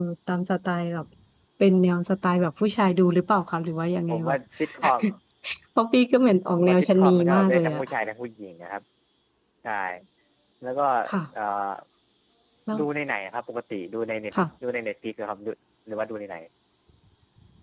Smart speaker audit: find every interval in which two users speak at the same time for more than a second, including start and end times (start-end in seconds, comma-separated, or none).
6.5-7.8